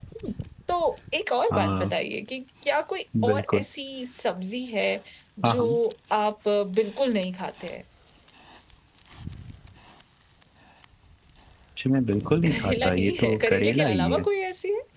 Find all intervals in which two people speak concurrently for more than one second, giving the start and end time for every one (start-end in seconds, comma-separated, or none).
12.5-14.3